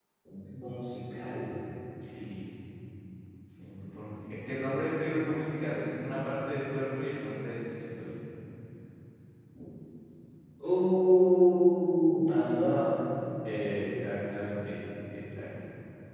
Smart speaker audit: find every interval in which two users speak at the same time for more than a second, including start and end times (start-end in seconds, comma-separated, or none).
none